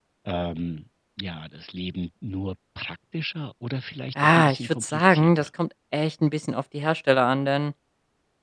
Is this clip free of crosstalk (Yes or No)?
No